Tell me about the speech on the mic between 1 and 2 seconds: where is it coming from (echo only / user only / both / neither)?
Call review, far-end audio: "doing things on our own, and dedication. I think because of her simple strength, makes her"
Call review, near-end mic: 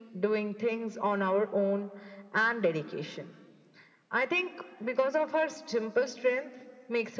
echo only